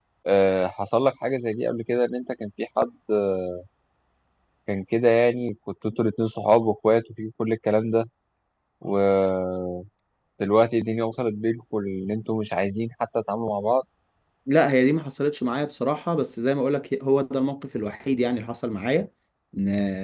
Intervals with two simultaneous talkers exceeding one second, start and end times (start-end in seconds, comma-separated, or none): none